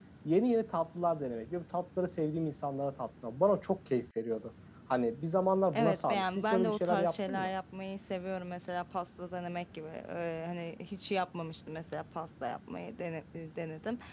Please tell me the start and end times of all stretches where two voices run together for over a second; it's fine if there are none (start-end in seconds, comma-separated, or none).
5.7-7.5